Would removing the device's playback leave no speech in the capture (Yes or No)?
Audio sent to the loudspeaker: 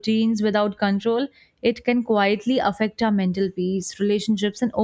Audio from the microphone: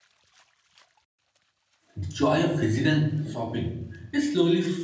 No